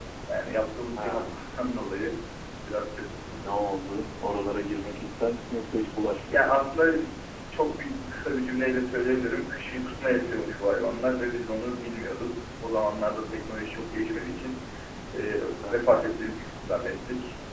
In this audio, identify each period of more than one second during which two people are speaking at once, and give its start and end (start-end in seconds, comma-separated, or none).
none